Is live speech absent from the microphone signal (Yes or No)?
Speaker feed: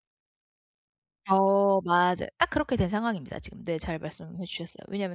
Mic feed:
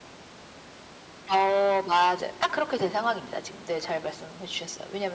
Yes